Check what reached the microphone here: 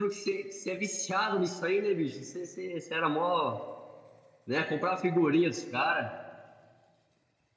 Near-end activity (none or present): present